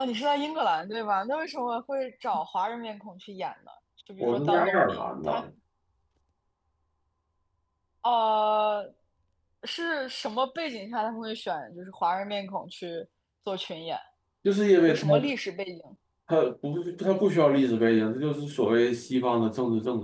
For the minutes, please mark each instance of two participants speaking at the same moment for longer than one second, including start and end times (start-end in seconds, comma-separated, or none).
4.2-5.4